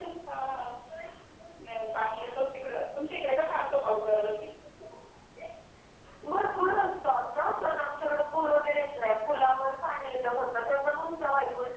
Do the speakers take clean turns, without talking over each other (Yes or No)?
Yes